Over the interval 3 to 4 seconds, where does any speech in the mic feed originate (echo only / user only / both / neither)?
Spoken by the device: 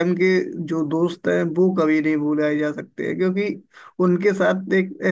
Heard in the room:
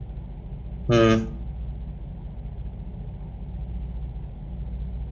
neither